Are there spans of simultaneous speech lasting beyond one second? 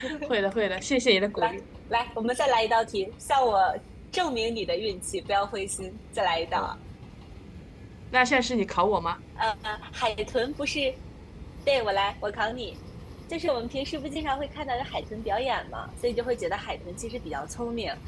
No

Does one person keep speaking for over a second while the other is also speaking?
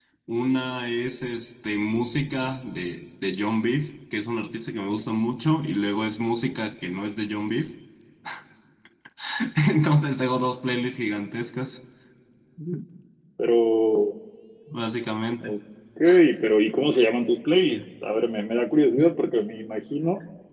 No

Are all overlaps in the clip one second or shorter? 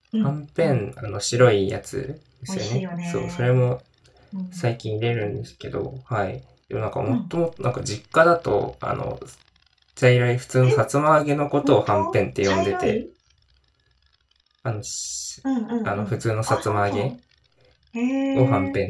No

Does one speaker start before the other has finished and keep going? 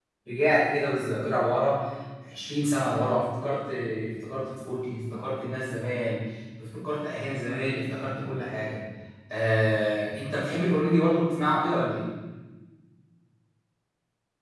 No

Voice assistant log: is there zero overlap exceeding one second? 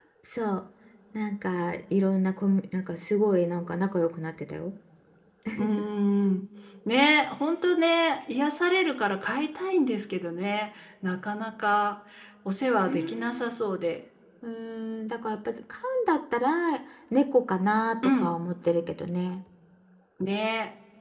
Yes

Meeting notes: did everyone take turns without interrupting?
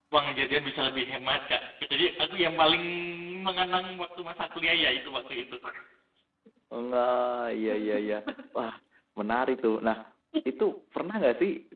Yes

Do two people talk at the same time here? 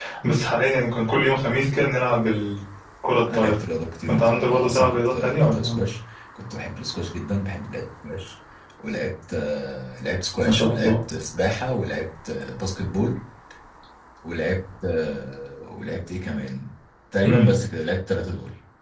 Yes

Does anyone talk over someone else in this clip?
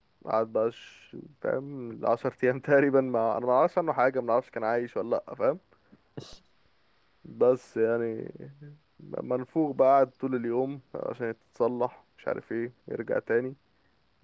No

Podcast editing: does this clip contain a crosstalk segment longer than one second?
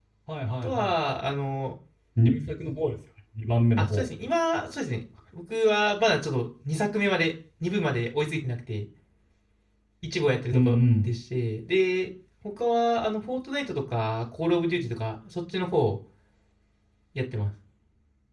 No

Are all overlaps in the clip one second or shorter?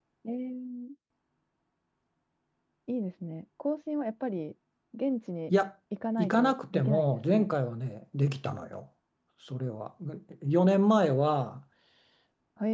No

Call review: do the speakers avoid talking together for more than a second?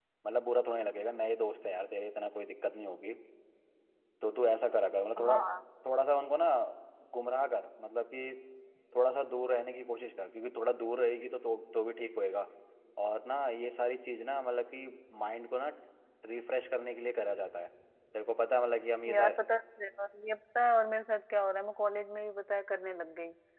Yes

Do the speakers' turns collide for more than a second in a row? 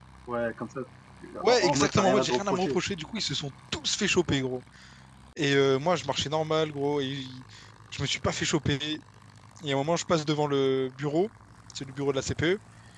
Yes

